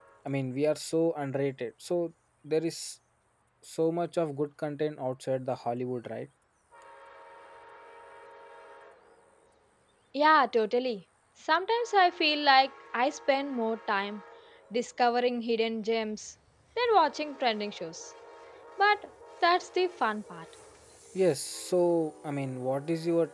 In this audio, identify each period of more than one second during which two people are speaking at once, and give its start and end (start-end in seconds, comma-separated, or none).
none